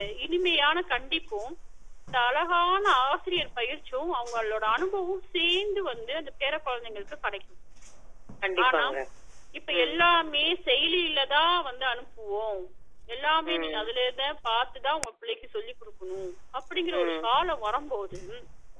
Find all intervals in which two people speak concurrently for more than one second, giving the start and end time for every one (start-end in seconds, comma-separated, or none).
none